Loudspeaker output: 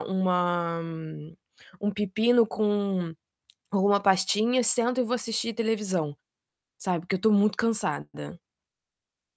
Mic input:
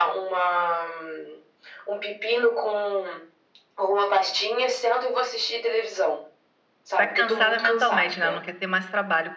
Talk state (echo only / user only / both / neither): both